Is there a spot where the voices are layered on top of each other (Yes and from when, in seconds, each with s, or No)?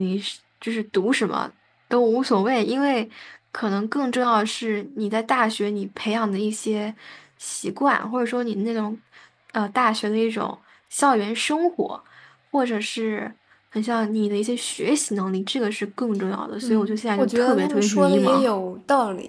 Yes, from 16.6 s